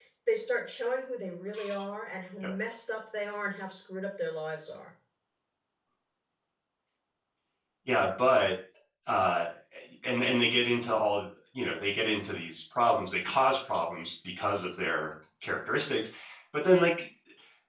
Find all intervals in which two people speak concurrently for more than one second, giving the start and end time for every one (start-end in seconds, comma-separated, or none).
none